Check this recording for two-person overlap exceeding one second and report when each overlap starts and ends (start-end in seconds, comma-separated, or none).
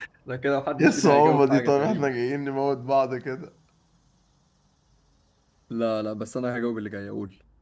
0.8-2.1